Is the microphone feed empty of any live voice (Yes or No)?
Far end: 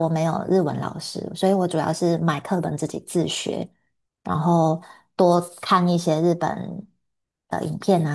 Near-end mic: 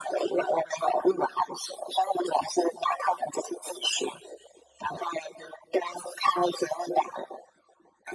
Yes